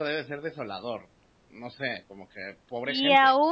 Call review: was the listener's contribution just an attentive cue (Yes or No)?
No